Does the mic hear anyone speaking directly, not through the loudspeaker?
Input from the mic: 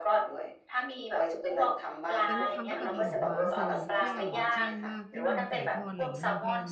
Yes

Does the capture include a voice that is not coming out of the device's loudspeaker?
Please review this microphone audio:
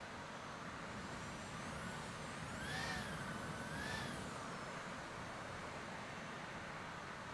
No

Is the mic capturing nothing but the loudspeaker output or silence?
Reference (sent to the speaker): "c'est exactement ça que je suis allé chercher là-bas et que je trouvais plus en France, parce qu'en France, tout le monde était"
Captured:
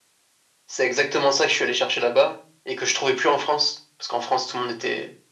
Yes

